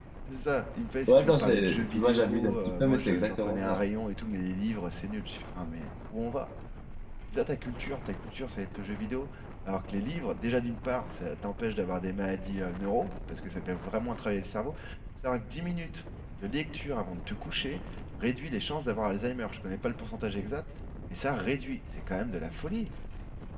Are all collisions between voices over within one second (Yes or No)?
No